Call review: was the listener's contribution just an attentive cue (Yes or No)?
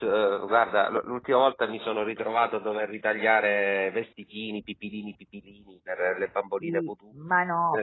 No